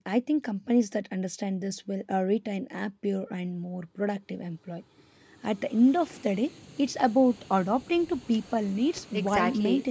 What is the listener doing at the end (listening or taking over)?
taking over